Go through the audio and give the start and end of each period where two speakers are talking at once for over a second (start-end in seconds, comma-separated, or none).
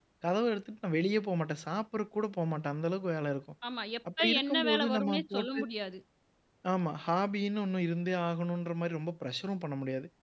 4.2-5.6